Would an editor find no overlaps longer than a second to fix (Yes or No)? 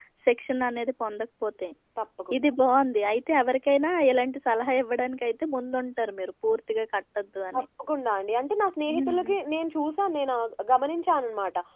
Yes